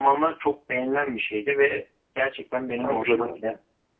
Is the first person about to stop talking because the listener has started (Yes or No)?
No